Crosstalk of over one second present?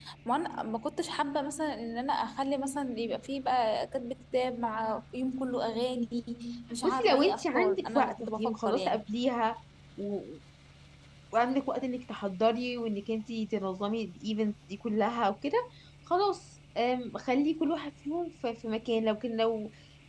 Yes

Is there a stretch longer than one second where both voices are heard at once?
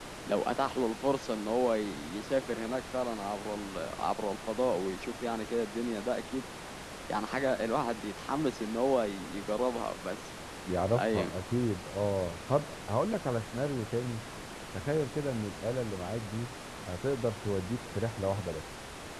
No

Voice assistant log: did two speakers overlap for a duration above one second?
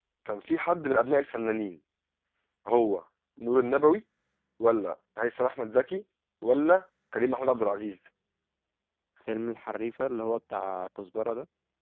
No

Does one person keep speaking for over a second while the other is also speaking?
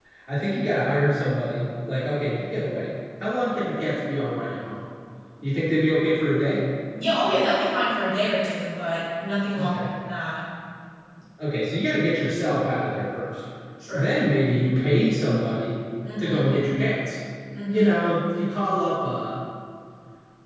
No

